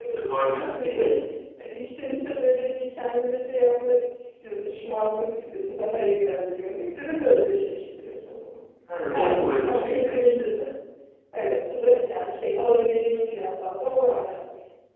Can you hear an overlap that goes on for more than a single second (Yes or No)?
Yes